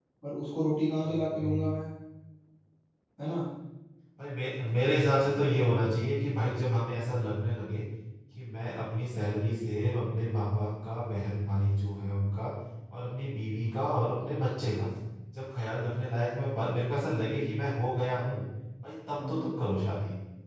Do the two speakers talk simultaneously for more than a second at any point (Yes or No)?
No